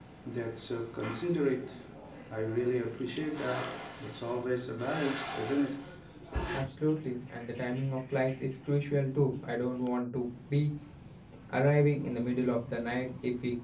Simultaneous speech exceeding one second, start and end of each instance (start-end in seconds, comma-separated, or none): none